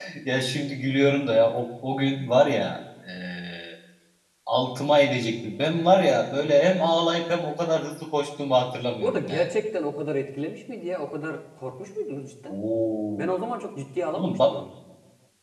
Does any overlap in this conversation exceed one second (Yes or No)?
No